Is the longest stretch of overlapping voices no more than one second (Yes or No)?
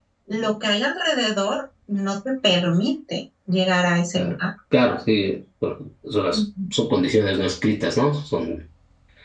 Yes